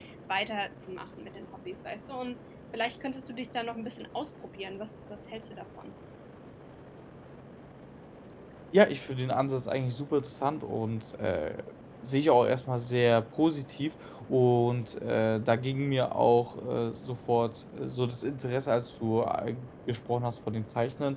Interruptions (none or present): none